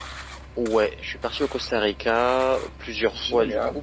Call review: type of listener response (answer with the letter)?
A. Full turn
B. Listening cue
B